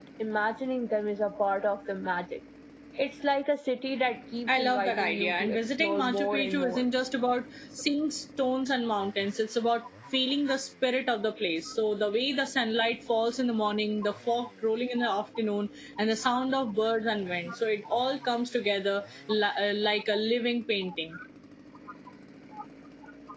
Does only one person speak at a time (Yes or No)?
No